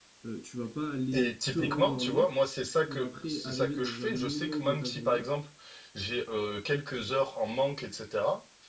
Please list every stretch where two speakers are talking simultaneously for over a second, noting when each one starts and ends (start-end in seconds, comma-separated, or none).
1.1-2.3, 2.9-5.3